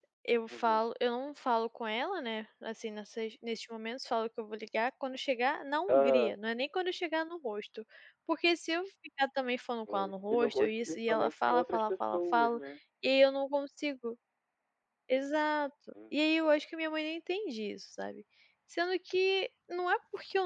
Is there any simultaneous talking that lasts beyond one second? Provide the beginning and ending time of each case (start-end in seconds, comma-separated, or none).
9.9-12.6